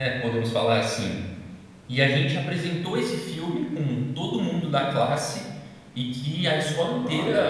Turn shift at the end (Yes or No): No